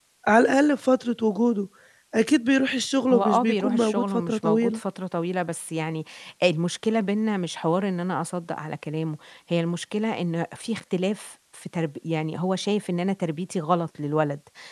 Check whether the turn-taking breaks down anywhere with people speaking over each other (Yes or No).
Yes